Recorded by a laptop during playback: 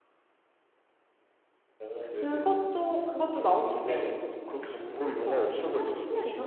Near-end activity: present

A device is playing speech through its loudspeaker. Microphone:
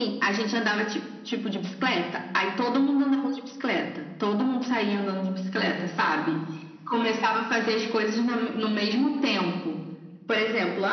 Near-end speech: none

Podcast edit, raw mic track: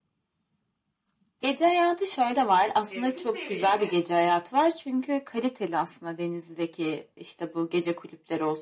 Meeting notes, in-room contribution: present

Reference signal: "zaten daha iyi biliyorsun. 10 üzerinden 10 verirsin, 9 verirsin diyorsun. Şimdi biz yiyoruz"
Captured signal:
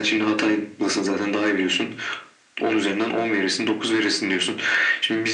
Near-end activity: none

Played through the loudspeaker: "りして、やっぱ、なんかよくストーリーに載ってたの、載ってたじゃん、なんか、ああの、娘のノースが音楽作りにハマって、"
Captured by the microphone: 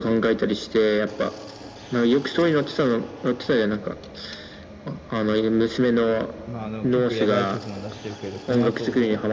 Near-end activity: present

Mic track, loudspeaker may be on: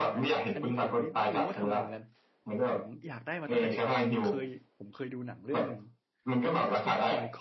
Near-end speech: present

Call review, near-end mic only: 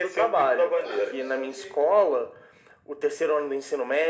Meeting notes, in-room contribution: present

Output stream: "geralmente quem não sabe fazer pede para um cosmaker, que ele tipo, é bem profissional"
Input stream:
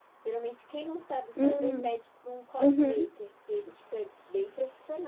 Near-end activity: present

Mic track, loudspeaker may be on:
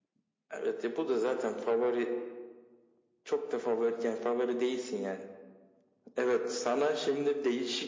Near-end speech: none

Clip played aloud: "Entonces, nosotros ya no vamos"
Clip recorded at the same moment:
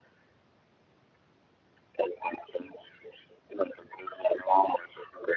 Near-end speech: none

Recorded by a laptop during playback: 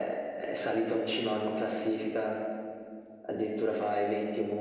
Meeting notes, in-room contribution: none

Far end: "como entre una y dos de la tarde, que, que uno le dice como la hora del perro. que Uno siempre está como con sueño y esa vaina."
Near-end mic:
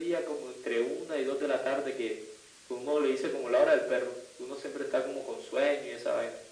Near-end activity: none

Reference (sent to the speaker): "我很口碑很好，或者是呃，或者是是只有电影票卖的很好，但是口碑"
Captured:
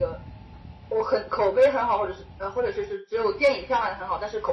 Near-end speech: none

